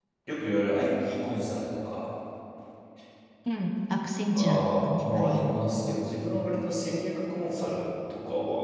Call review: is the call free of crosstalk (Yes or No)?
No